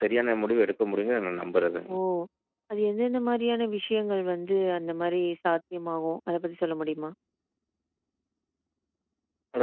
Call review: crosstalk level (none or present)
none